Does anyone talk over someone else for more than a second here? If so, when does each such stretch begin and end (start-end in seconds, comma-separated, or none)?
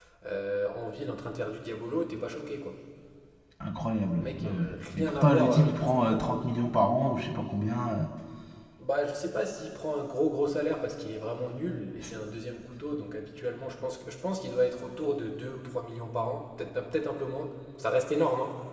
4.2-6.2